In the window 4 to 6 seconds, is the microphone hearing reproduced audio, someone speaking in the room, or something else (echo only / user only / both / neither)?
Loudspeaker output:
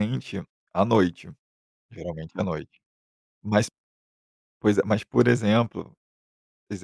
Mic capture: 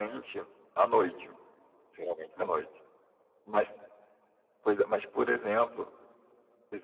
echo only